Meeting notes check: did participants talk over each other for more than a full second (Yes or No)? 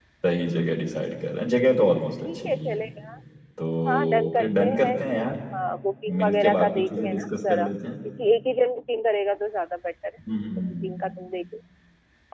Yes